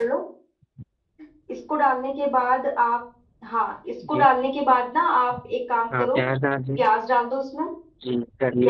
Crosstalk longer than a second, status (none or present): none